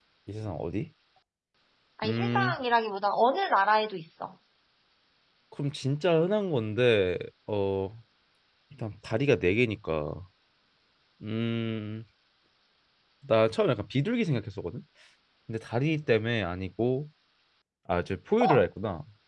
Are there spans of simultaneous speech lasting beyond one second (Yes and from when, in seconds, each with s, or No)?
No